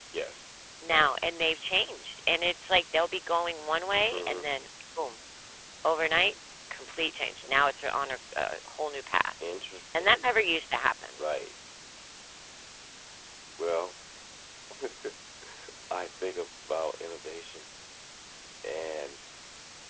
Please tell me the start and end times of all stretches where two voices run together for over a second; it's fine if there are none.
none

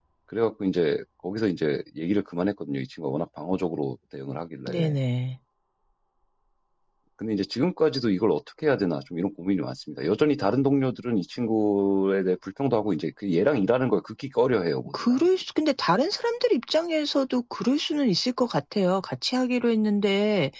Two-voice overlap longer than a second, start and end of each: none

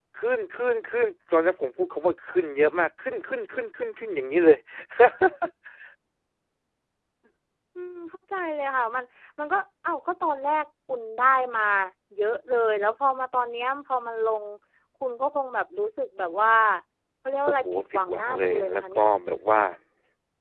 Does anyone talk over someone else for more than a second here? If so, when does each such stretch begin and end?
17.5-19.1

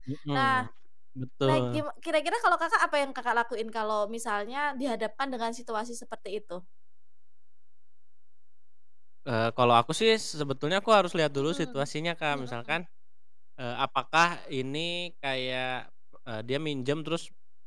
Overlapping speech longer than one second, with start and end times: none

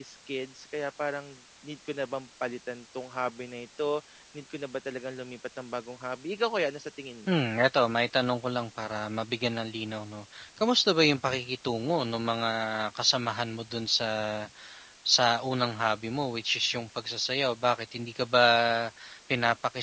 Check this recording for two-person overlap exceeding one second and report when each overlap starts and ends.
none

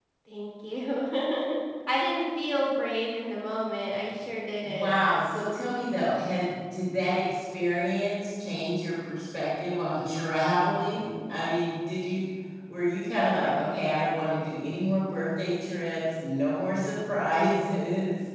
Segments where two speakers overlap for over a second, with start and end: none

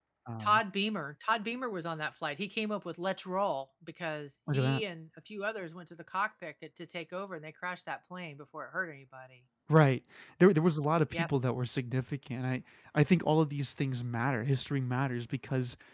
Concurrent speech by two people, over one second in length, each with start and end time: none

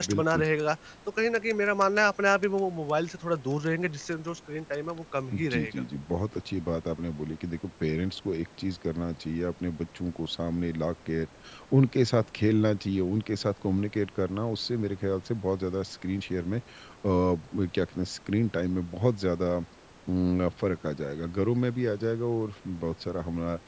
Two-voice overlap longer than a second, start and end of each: none

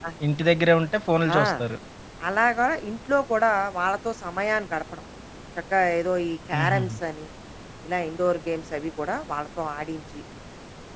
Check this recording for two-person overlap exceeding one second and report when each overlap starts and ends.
none

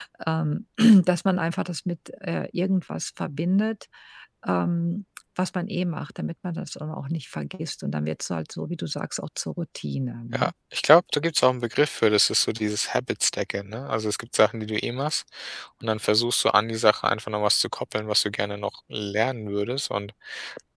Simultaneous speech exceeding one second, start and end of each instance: none

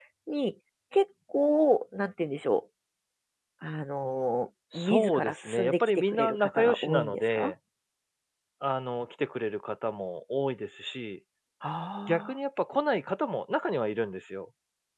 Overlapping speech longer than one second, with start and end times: 4.7-7.5

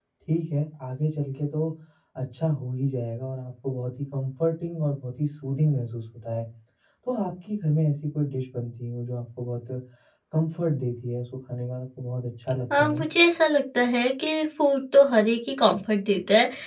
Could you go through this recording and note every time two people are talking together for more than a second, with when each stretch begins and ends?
none

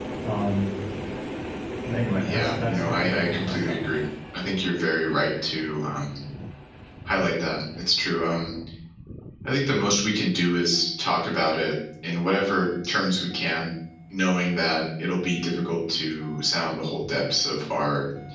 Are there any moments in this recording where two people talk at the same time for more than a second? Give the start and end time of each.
2.2-3.8

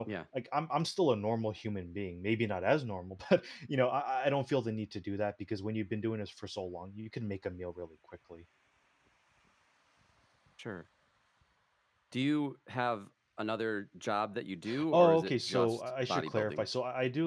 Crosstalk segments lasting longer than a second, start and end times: 14.9-16.7

